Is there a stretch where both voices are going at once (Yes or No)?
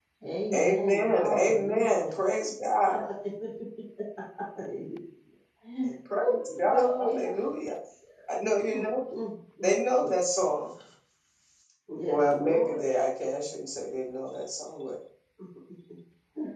Yes